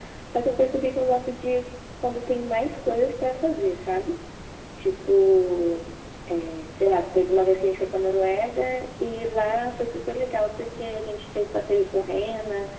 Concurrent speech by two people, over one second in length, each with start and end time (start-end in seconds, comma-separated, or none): none